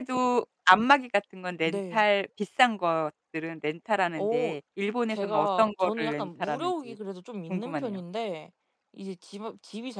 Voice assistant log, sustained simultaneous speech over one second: present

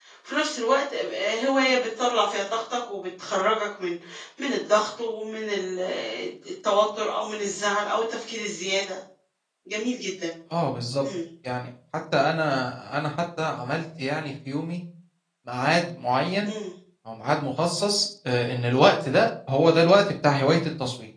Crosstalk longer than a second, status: none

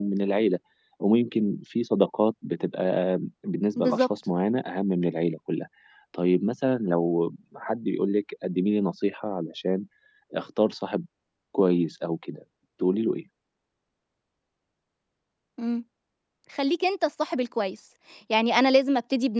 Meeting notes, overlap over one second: none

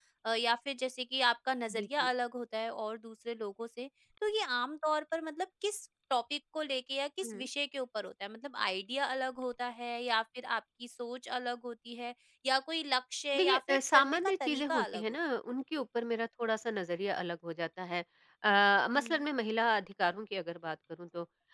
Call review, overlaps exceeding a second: present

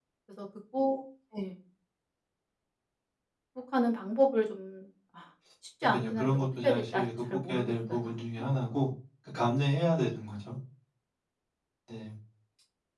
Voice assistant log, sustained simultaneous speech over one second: present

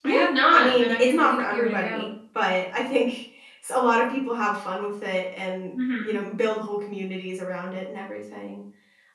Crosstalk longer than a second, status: present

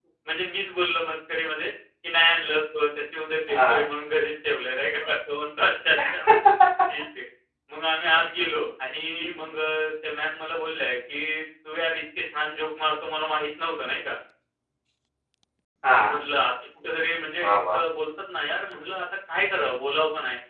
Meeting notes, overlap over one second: none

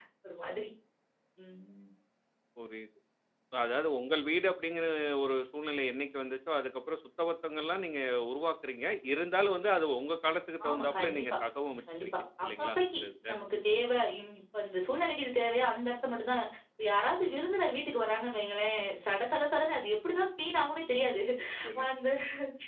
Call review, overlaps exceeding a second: present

